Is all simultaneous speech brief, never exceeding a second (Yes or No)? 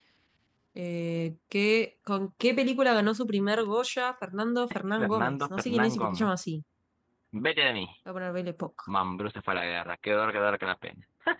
No